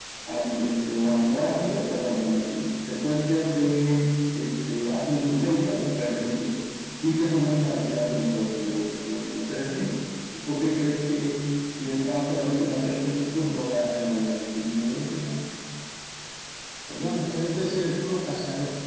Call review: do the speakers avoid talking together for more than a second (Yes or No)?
Yes